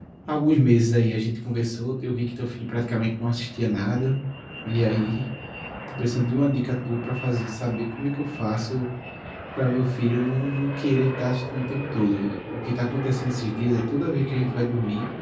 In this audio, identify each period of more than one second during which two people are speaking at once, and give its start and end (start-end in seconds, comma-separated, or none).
none